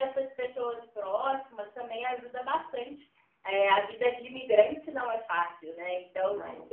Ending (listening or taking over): listening